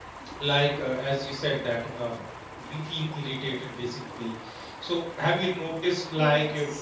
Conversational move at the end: listening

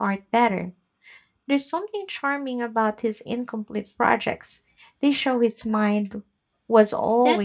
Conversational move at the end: taking over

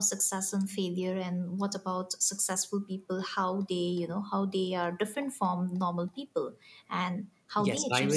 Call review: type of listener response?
taking over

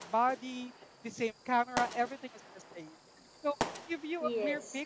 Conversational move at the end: listening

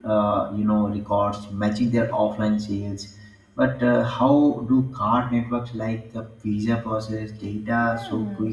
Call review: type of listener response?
taking over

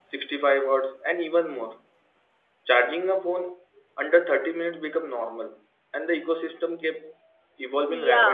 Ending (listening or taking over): taking over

